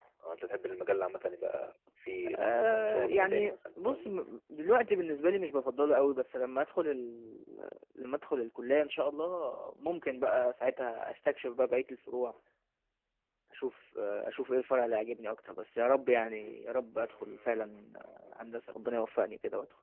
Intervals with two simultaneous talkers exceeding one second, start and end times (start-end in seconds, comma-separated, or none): 2.3-4.1